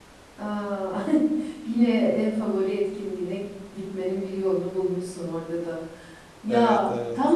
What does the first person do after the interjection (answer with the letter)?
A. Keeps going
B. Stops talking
A